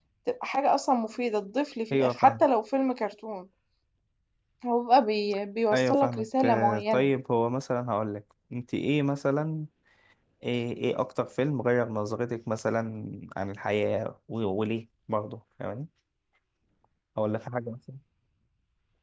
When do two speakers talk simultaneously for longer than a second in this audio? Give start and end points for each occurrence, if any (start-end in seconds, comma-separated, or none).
5.7-7.1